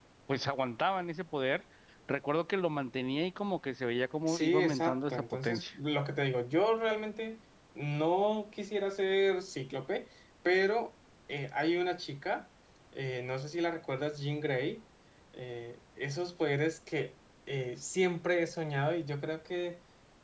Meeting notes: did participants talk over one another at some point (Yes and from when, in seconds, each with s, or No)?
Yes, from 4.3 s